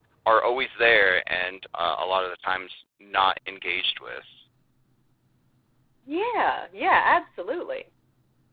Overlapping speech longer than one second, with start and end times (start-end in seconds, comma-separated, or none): none